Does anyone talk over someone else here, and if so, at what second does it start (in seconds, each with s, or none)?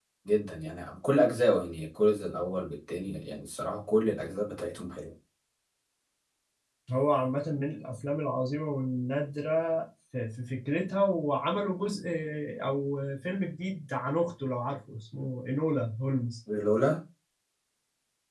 none